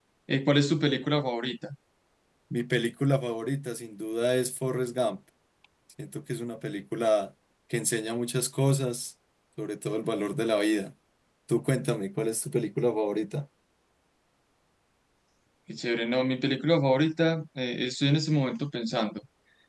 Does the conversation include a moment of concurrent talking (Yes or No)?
No